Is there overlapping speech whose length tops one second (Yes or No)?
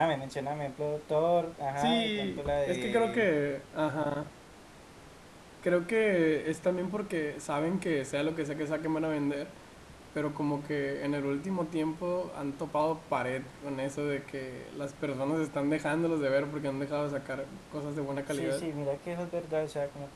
Yes